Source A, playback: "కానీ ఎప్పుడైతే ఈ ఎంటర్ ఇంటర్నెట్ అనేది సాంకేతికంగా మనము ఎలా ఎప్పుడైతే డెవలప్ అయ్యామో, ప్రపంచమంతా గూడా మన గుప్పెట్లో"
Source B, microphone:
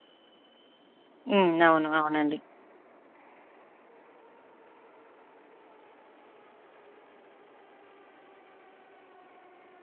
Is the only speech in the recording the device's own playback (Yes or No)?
No